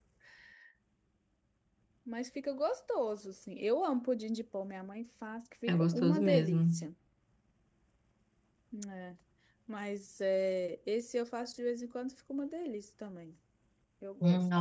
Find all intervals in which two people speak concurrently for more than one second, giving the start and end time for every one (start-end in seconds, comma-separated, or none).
5.7-6.9